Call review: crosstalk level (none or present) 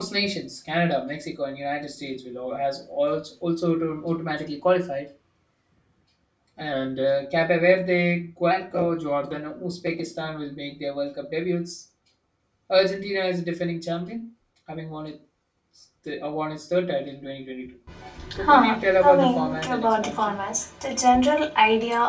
present